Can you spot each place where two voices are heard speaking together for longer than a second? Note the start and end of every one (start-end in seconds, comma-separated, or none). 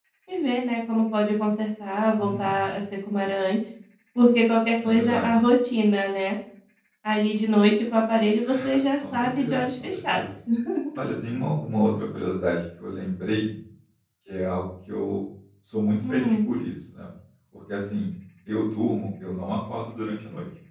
9.0-10.2